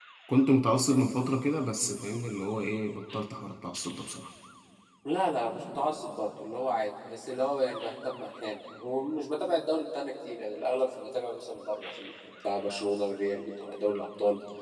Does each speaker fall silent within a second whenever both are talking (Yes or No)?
Yes